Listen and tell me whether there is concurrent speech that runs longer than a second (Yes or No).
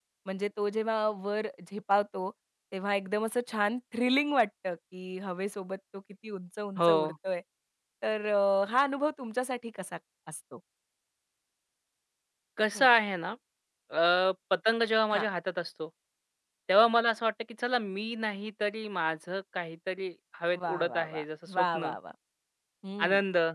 Yes